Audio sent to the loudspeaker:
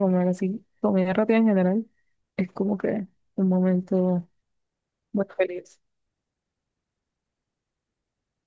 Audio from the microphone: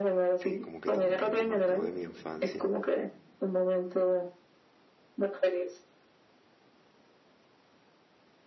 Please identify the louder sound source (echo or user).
echo